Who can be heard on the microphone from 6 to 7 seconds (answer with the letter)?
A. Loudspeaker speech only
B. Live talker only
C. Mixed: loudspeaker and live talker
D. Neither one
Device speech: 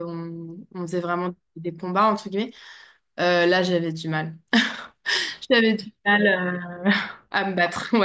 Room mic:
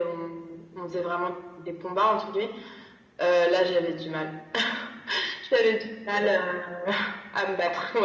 A